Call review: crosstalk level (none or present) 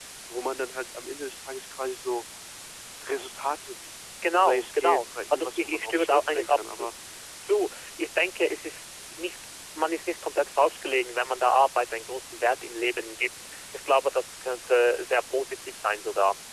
present